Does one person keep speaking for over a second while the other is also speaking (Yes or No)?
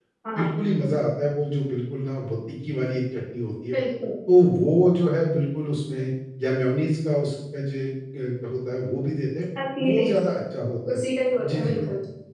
No